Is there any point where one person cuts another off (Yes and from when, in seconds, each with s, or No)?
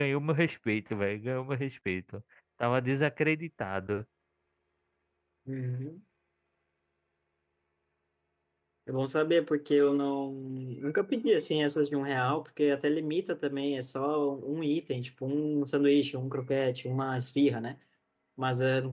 No